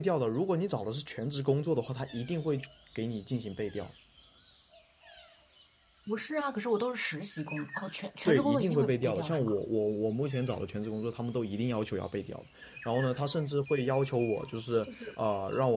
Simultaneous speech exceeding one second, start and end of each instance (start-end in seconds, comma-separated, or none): 8.2-9.6